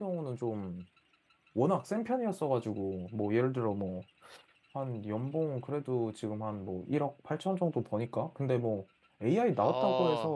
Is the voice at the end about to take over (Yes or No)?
No